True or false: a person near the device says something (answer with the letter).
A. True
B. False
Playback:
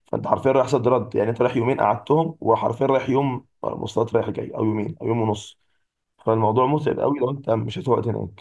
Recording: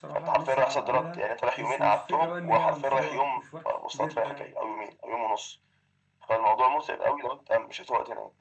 A